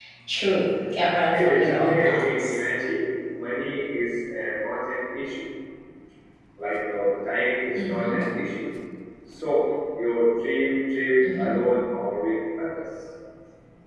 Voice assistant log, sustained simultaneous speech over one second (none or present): present